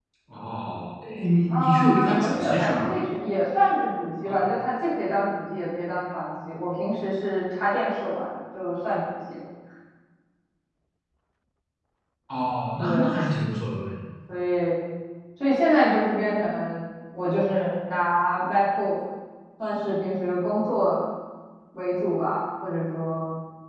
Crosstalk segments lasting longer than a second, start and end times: 1.5-2.8

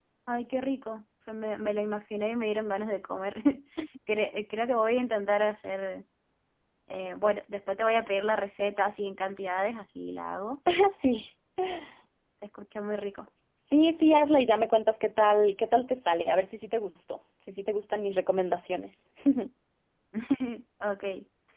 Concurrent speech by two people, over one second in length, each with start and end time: none

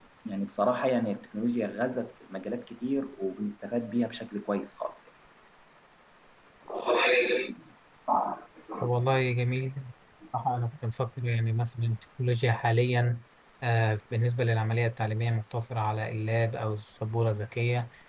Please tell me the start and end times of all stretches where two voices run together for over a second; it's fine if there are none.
none

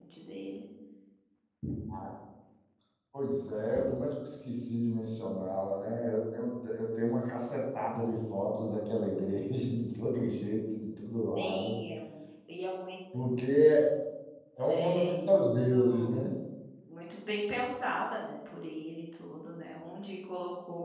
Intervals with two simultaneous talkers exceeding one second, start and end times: 14.7-16.2

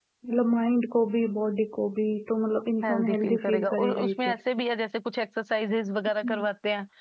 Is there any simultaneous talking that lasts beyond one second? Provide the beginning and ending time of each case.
2.8-4.4

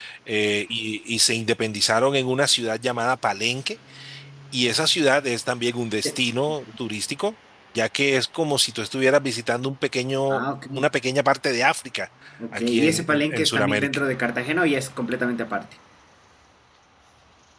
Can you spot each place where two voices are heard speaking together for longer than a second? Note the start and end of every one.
12.5-14.0

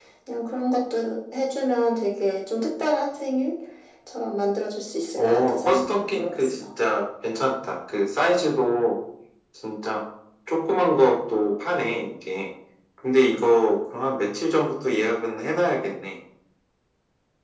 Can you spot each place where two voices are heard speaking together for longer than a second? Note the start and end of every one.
5.2-6.5

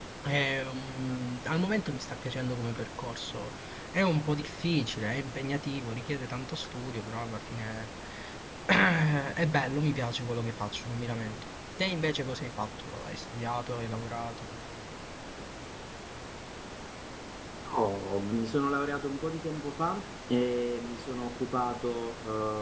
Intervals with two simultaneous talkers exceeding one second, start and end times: none

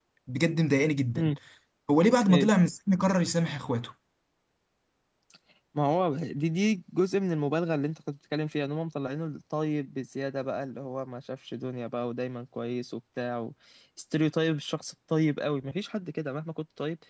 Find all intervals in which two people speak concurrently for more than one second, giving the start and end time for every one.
none

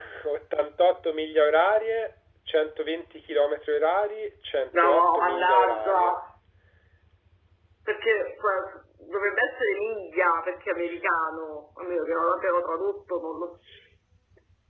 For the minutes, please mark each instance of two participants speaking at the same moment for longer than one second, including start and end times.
4.8-6.1

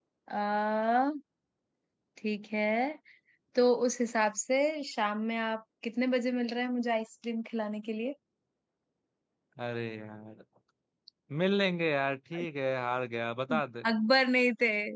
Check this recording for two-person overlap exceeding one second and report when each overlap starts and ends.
none

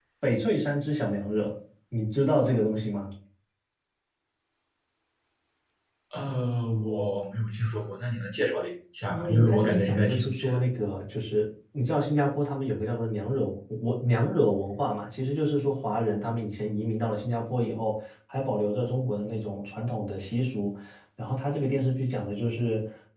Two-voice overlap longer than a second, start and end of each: 9.1-10.6

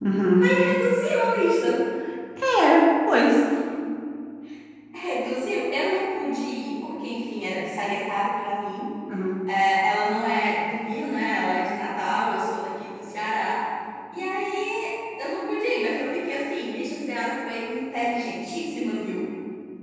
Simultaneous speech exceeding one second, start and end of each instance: none

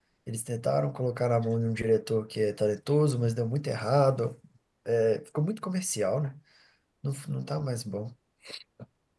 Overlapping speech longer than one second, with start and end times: none

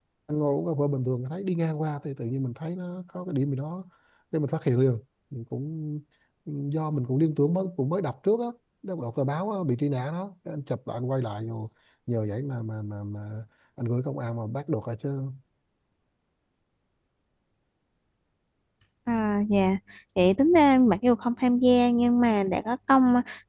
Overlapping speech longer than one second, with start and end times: none

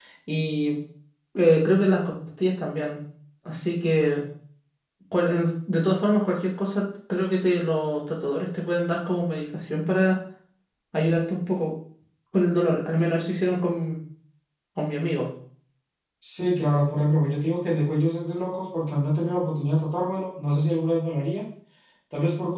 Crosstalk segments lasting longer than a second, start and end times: none

